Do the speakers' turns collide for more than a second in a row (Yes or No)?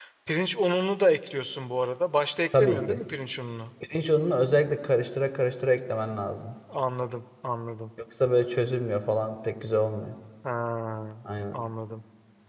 No